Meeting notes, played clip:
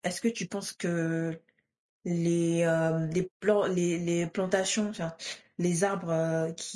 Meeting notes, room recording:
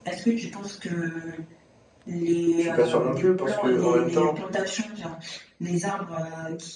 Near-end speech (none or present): present